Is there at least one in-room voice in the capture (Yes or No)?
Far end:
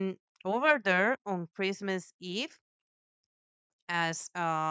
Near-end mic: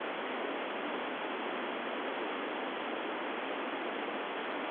No